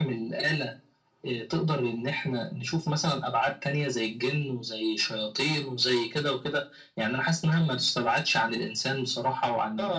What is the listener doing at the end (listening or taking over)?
taking over